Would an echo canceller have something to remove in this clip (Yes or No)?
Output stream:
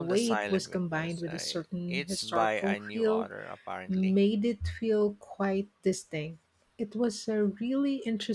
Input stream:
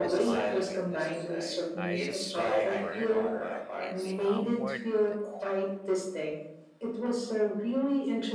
Yes